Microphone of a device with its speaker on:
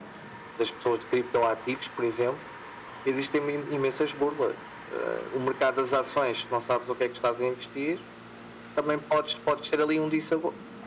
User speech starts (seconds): none

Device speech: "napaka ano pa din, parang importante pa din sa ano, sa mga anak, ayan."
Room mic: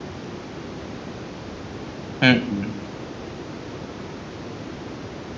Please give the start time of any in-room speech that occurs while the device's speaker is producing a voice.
2.2 s

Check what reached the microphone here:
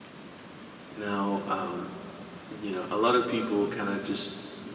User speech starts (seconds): 0.9 s

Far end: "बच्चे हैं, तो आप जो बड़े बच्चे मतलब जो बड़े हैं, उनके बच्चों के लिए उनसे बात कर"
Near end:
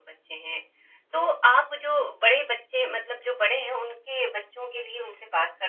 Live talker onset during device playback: none

